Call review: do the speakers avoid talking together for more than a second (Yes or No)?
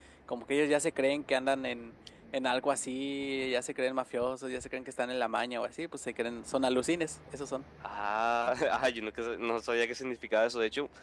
Yes